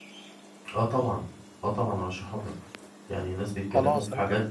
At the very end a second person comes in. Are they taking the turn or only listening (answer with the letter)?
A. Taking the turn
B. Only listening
B